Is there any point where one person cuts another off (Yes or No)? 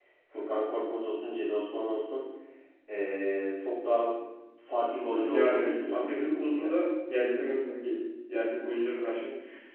Yes